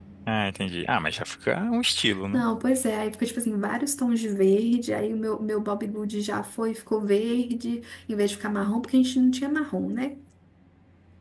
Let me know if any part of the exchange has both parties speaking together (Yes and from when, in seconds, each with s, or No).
No